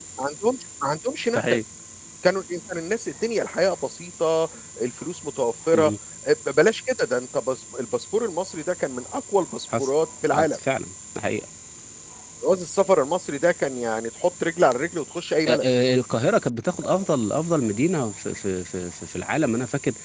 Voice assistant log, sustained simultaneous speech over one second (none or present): none